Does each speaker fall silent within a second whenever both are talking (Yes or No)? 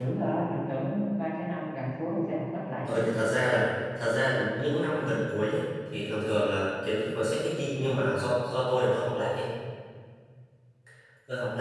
Yes